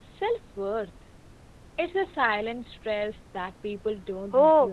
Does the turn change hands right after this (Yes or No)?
Yes